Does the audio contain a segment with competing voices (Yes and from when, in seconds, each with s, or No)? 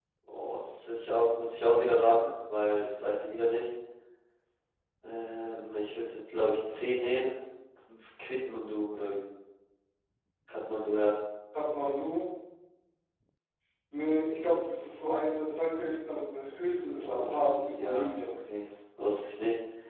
Yes, from 16.9 s